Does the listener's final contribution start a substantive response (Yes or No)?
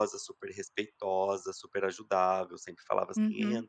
No